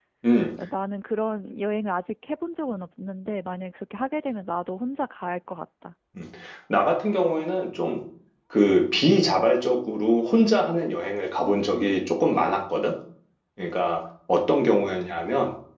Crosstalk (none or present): none